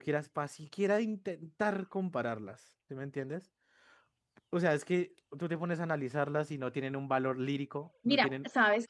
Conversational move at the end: taking over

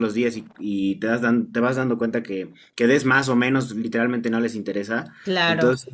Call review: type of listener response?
listening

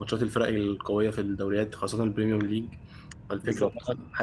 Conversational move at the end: listening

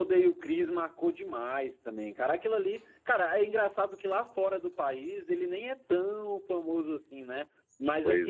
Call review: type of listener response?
listening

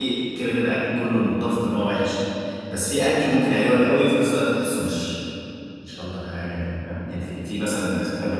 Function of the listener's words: listening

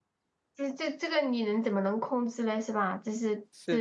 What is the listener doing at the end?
listening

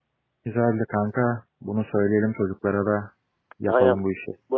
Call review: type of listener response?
taking over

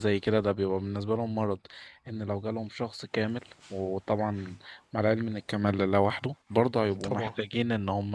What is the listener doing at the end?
listening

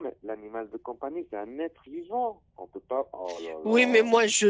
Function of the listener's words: taking over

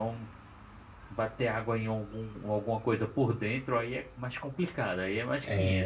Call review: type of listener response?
taking over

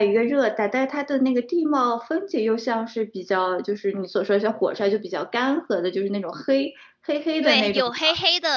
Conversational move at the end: taking over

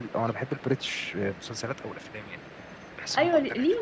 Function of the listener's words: taking over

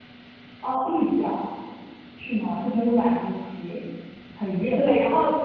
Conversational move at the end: taking over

